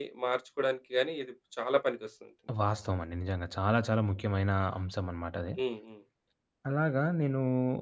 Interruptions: none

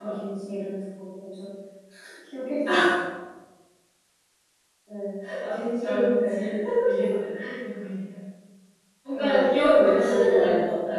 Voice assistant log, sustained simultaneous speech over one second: present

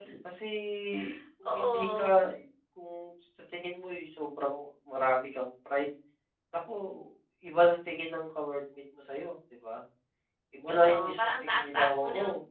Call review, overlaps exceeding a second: present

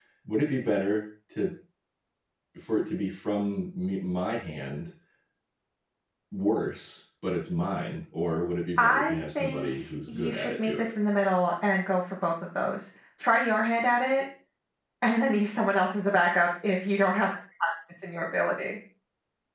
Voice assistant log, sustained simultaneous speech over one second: present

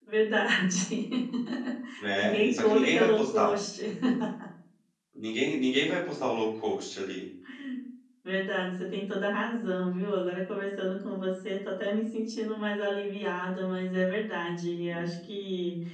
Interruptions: present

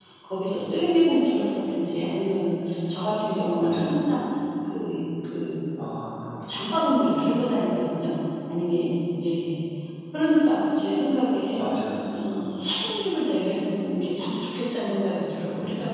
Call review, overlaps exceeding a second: none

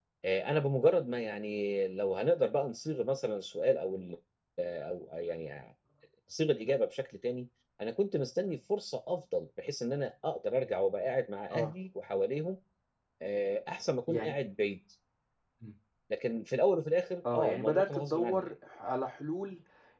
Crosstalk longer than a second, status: present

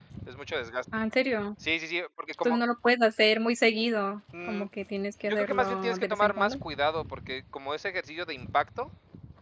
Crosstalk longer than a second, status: present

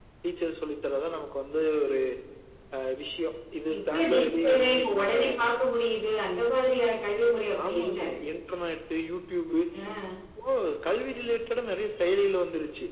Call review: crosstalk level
present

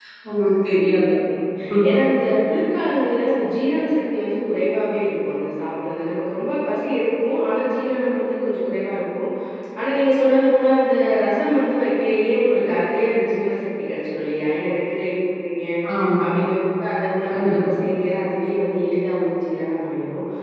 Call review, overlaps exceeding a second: none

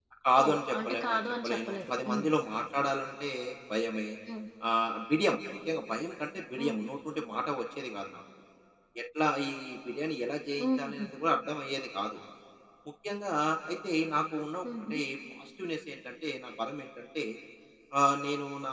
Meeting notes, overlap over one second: present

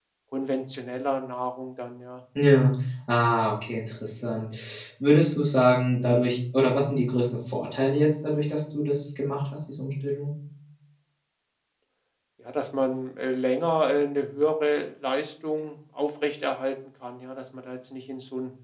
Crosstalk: none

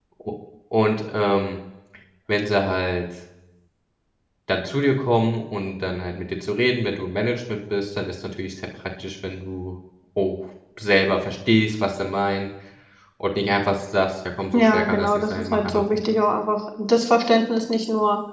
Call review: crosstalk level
present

